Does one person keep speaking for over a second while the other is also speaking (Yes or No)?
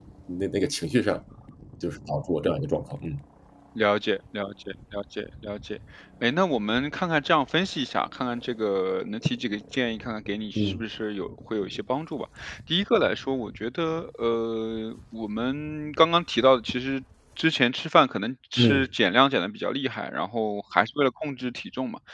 No